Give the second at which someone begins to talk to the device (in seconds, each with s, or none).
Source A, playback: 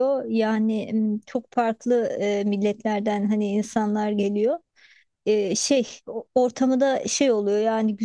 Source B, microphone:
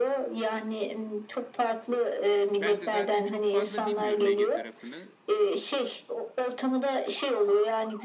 2.5 s